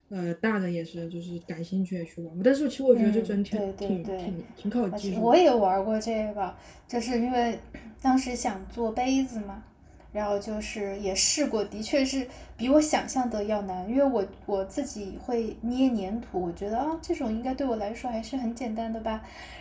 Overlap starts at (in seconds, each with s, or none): 2.9 s